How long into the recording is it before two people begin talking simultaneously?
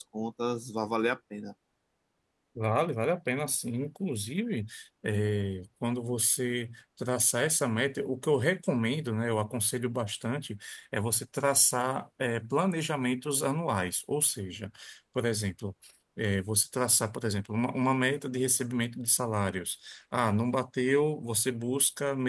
none

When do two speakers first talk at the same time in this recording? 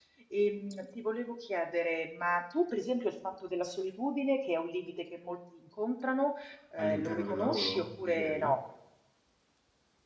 7 s

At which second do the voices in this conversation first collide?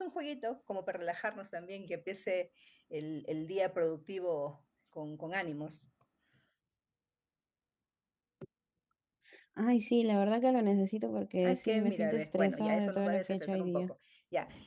11 s

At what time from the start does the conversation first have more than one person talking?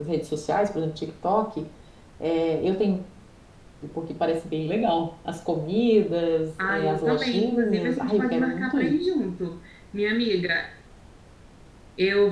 7 s

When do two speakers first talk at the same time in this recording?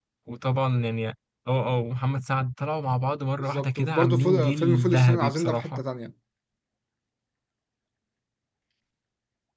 3 s

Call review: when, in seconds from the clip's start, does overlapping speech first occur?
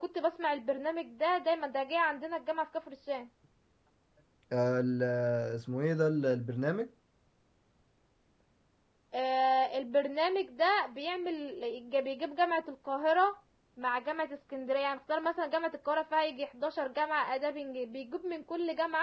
none

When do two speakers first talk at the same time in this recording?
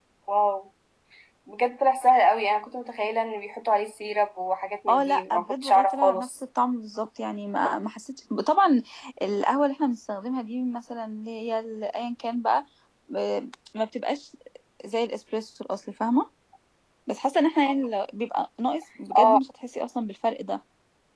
5 s

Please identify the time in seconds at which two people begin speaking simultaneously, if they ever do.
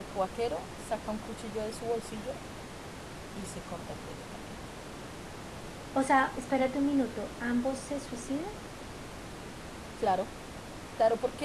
none

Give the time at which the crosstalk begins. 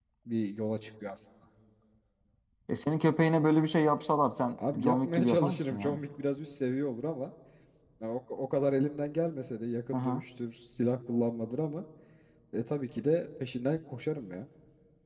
5 s

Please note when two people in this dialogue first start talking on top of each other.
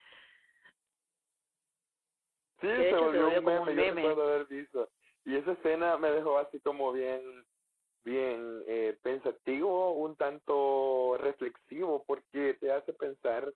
3 s

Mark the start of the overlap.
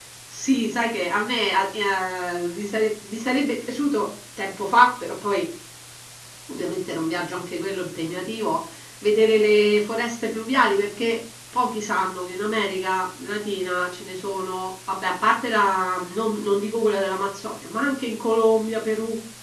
none

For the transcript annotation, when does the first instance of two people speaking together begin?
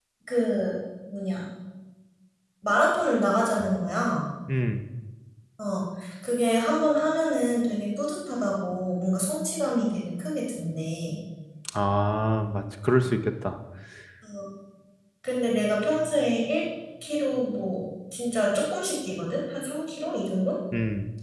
none

